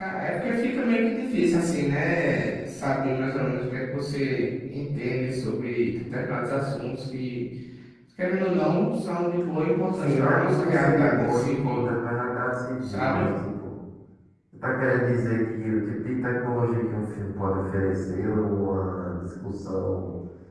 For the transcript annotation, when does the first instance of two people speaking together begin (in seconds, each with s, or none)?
10.0 s